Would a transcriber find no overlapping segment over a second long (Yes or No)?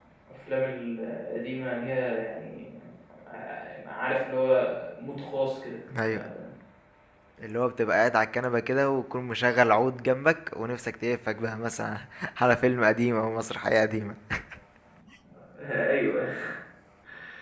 Yes